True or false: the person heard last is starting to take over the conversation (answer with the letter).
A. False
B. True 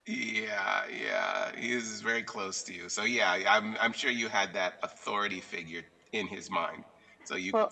A